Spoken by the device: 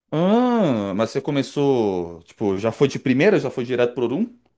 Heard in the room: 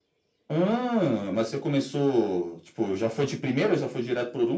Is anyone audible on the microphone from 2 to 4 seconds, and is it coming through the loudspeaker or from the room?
echo only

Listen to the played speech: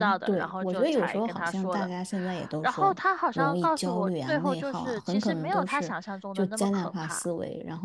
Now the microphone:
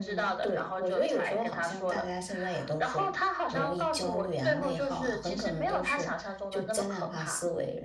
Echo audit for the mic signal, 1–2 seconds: echo only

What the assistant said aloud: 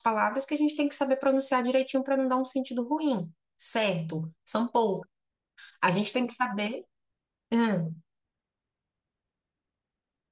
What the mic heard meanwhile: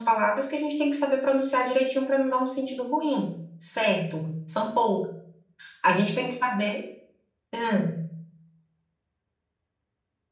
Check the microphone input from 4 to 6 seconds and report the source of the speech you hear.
echo only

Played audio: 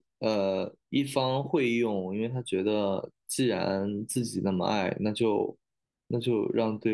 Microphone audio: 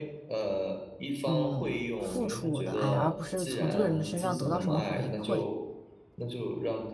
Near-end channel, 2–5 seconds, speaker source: both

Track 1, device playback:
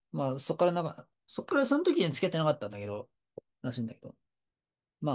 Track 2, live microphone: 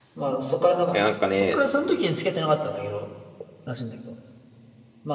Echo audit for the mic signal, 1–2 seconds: both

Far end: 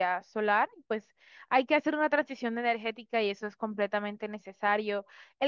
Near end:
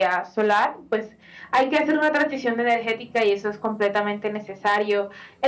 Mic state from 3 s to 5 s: echo only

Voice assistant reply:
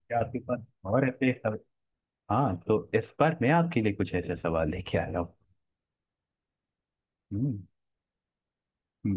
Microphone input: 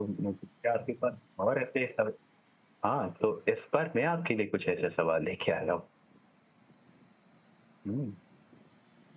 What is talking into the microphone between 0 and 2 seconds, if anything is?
echo only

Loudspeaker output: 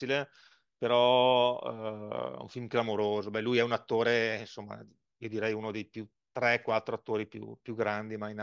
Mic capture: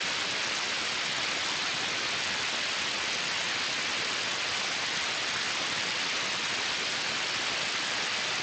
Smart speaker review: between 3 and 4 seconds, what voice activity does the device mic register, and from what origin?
neither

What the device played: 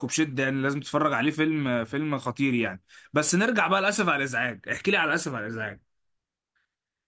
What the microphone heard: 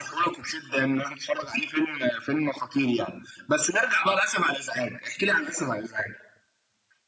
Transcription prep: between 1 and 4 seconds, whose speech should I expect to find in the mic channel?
echo only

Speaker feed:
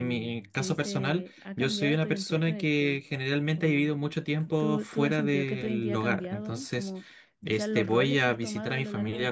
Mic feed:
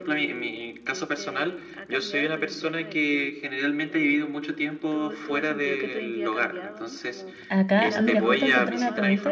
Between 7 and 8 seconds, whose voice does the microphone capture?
both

